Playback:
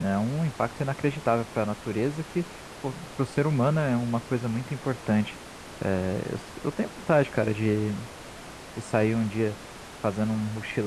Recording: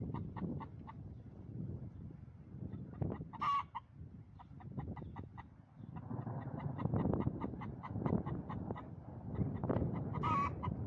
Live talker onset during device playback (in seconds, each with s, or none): none